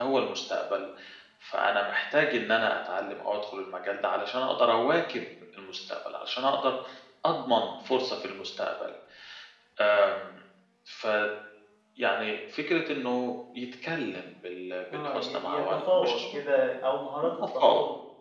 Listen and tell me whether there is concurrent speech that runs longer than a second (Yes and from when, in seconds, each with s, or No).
Yes, from 14.9 s